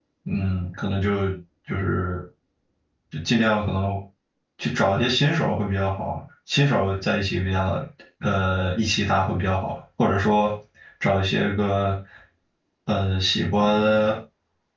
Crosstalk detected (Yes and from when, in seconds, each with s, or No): No